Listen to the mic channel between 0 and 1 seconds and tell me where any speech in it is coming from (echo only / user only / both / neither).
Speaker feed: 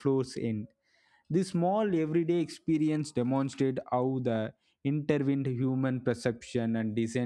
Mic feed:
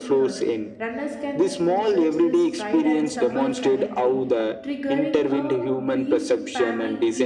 both